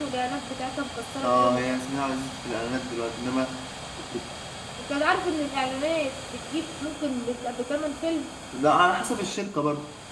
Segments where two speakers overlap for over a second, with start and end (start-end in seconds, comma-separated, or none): none